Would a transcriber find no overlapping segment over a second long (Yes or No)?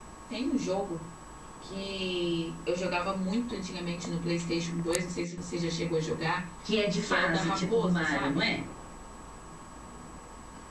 No